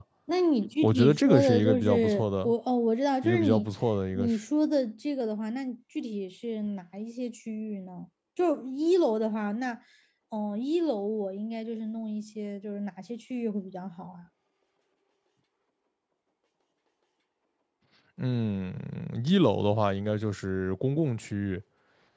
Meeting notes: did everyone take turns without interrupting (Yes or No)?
No